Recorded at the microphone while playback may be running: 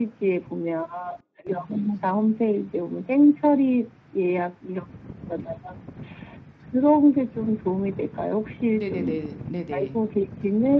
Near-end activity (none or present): present